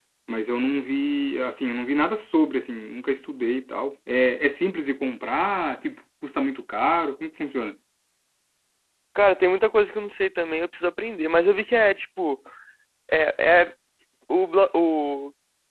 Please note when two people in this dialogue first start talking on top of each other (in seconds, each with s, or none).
none